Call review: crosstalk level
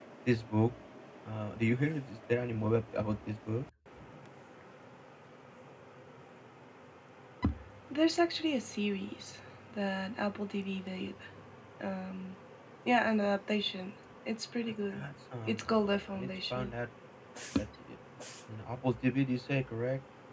present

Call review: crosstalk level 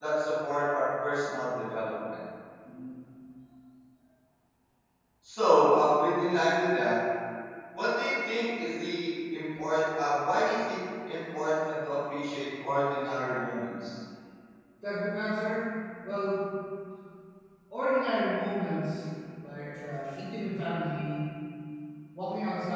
none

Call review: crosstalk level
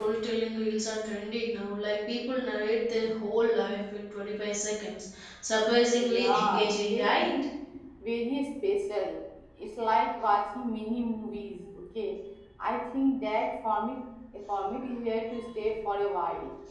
present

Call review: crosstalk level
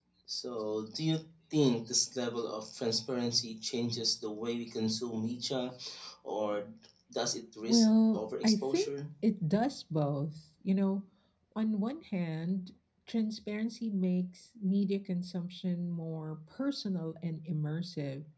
present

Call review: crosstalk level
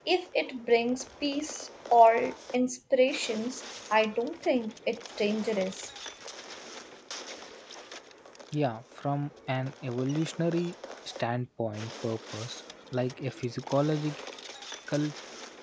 none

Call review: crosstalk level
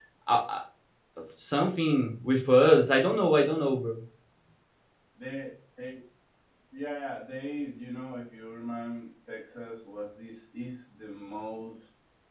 none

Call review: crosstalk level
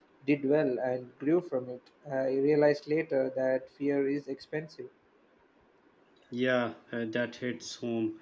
none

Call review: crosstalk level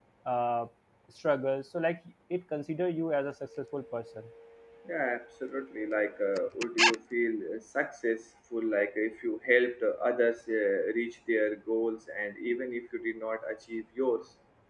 none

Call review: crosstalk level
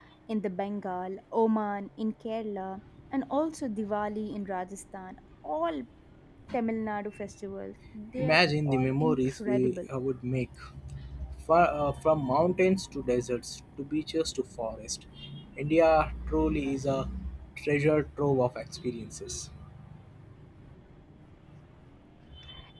present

